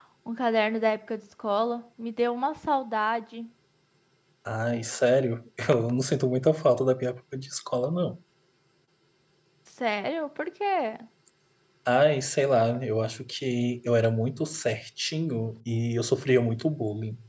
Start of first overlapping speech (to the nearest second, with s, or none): none